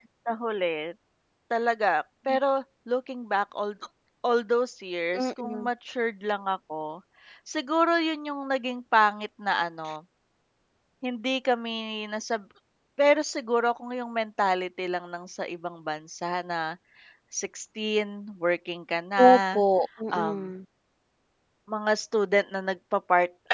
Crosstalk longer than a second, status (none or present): none